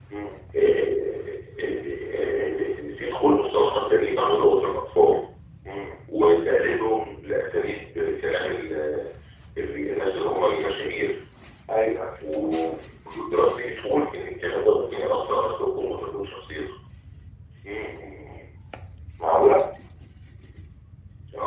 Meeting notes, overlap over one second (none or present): none